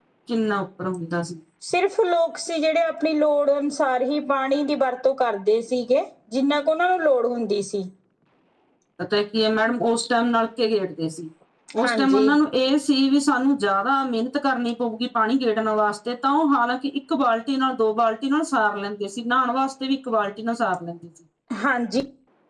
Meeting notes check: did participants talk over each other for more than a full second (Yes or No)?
No